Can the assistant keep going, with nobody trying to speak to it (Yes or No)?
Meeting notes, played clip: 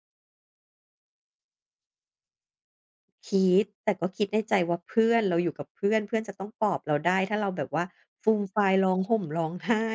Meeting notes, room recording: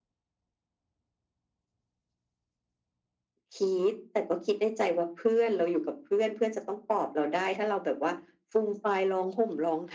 Yes